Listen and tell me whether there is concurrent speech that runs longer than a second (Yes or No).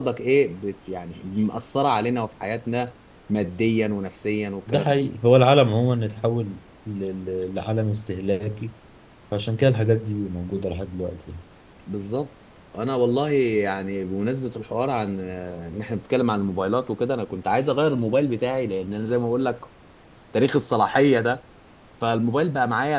No